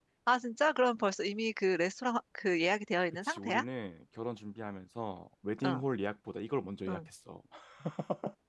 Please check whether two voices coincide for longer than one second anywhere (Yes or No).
No